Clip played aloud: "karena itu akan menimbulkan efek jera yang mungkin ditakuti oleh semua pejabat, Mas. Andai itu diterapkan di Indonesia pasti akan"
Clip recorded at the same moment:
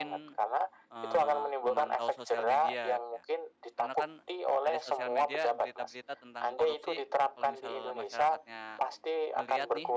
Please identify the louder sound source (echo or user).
echo